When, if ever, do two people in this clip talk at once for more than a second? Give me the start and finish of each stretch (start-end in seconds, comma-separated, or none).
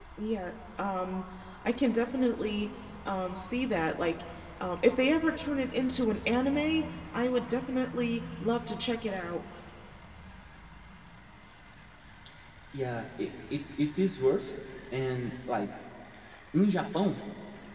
none